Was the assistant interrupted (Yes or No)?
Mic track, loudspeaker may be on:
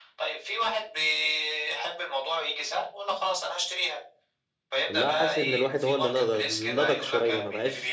Yes